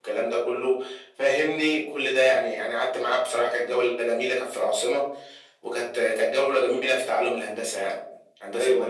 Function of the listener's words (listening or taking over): taking over